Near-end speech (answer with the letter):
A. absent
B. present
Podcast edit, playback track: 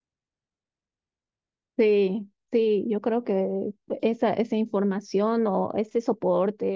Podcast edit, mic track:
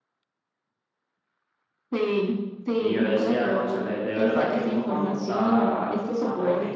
B